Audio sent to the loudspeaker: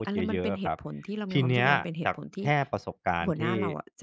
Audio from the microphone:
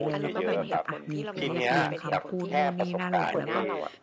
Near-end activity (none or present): present